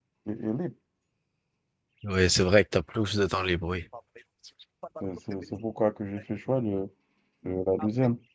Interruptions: none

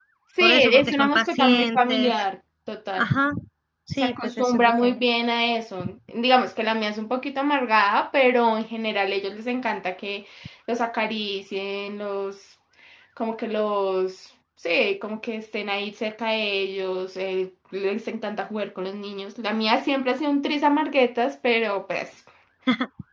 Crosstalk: present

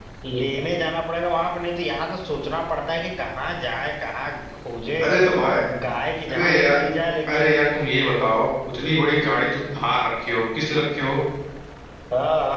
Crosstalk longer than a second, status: none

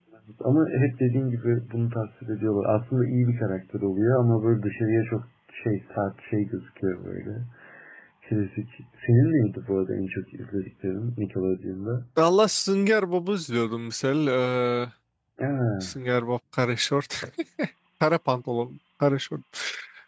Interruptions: none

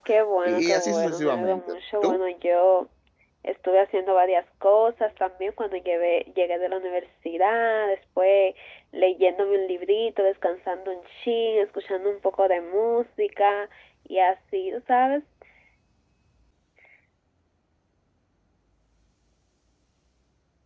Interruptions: present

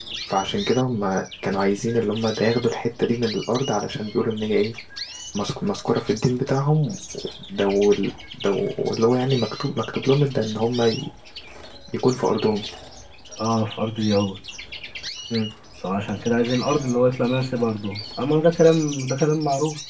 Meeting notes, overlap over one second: none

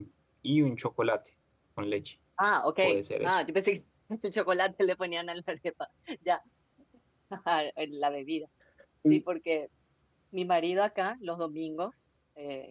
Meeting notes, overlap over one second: none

